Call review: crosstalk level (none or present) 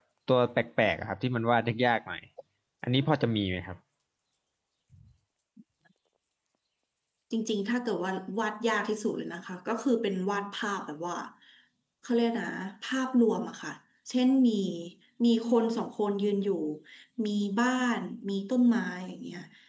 none